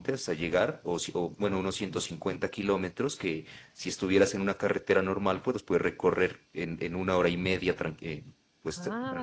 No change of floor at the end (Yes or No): No